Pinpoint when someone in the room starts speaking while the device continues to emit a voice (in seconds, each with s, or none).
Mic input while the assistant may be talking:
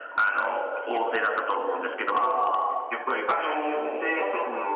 none